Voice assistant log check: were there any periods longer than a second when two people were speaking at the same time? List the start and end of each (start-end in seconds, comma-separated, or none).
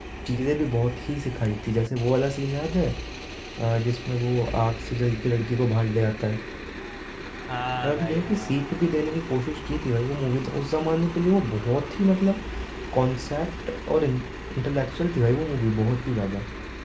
7.8-9.1